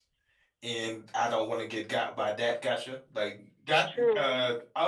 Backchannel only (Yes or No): Yes